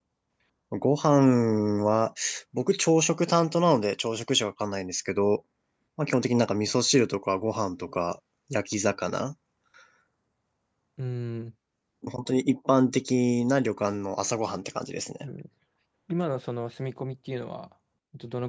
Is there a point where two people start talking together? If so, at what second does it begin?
none

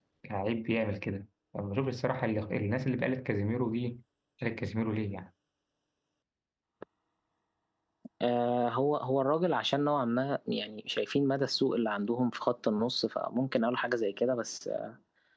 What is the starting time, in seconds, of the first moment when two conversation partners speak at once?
none

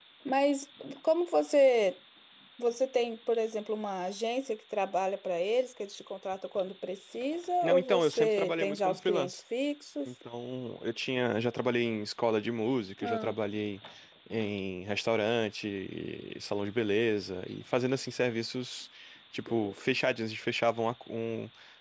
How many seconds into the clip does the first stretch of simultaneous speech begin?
7.6 s

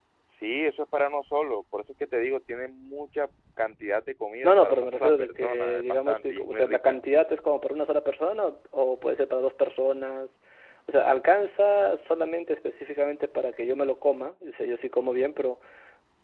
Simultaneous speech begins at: 4.4 s

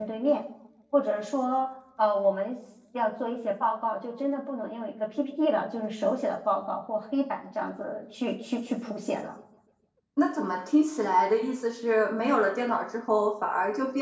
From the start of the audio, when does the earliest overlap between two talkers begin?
none

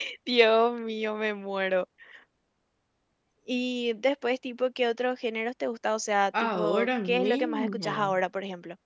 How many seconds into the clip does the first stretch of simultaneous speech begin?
6.3 s

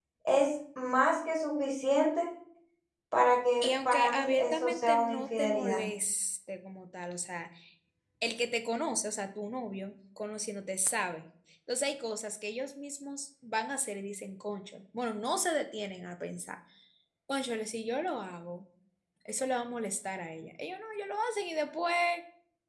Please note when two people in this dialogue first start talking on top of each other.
3.6 s

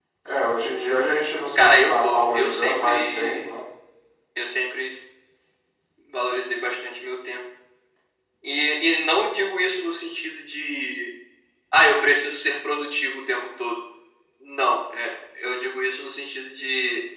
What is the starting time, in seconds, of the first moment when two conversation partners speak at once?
1.6 s

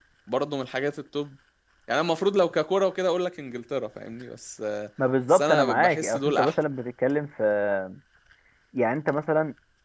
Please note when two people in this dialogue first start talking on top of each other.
5.3 s

